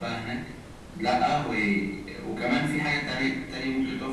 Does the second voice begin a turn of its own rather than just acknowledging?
Yes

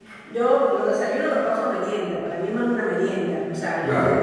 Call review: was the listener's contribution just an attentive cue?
Yes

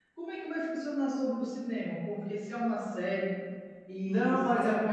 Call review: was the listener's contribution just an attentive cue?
No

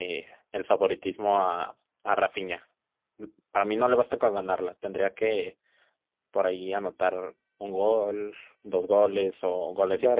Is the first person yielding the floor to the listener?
Yes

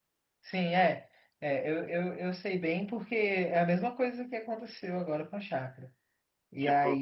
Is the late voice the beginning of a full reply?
No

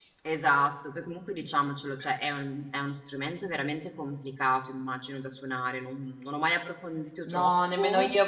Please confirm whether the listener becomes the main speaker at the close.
Yes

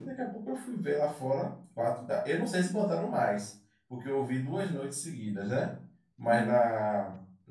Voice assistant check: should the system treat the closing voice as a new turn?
No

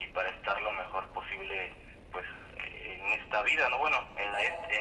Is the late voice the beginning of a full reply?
No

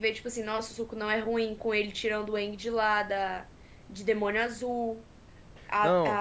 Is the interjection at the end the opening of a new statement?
No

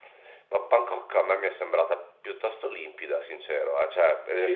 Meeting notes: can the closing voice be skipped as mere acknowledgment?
No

